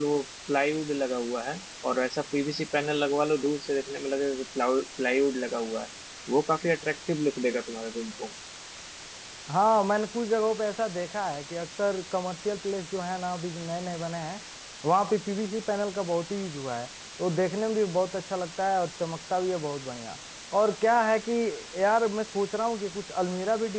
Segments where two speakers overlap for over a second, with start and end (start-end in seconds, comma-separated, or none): none